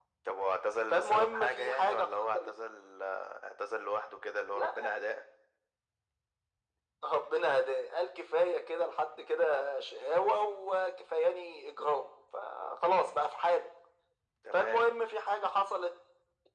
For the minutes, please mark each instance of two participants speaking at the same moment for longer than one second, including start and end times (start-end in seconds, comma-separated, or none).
0.9-2.5